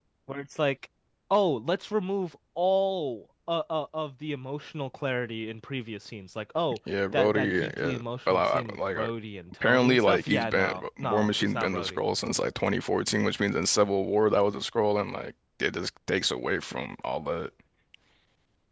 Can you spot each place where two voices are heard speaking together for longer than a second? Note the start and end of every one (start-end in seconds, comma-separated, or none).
7.1-9.1, 9.6-12.0